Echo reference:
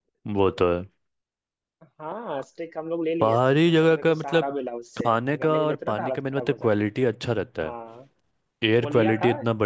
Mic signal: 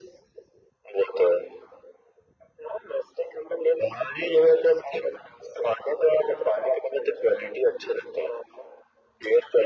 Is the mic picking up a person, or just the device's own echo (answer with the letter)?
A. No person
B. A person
A